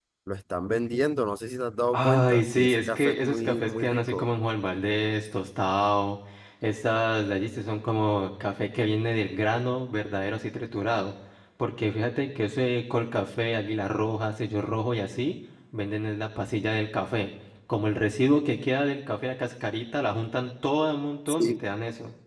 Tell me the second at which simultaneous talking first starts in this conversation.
2.0 s

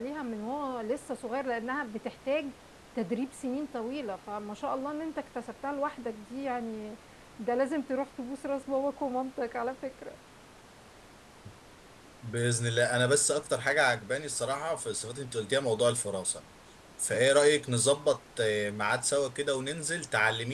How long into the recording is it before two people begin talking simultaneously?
none

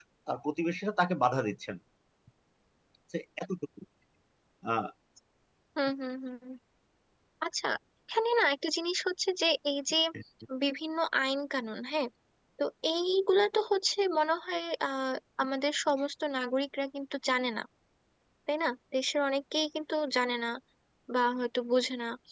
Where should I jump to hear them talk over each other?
none

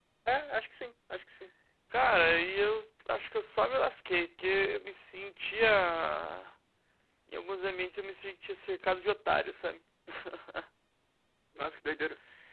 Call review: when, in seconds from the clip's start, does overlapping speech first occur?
none

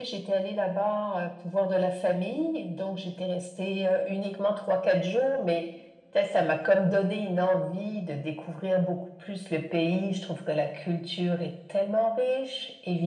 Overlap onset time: none

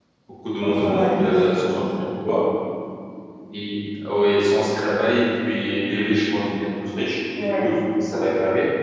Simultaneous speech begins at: 0.6 s

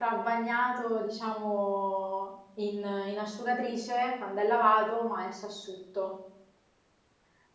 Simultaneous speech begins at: none

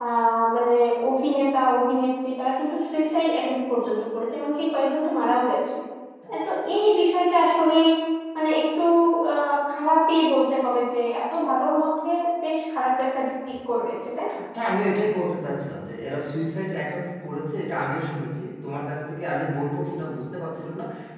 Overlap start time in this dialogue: none

